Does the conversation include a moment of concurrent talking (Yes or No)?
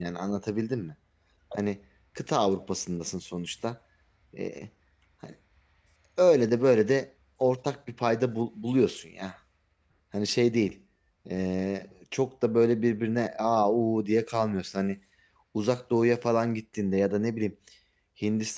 No